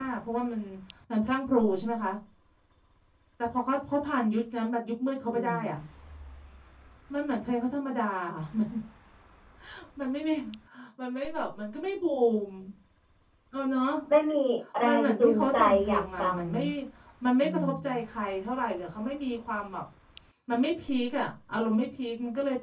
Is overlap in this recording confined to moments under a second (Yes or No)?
No